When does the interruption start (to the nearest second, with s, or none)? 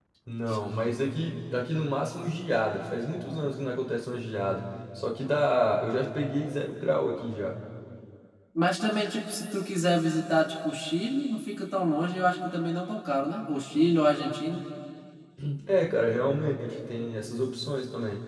none